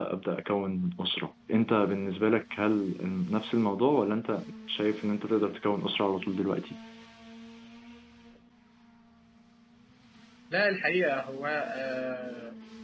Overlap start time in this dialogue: none

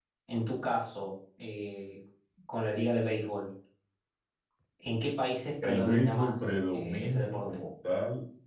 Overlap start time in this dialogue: 5.6 s

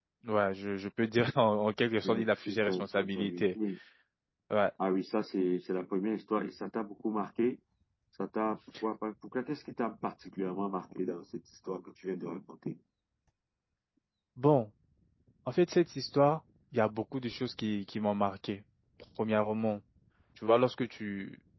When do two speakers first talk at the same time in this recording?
2.0 s

